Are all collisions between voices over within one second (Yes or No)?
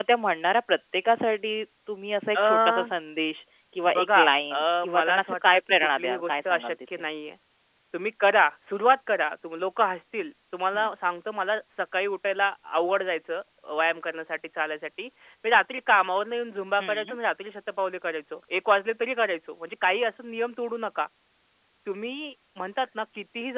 No